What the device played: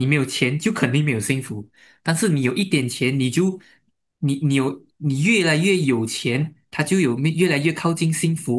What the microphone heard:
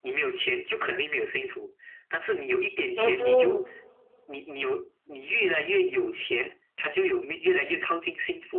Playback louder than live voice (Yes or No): No